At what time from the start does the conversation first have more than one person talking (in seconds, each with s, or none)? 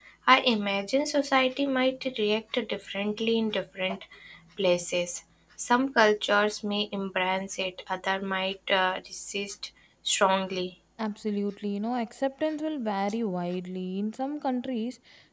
none